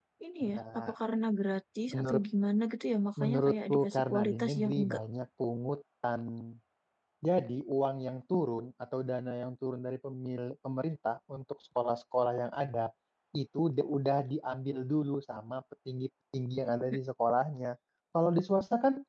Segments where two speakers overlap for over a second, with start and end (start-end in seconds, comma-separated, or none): 3.2-5.0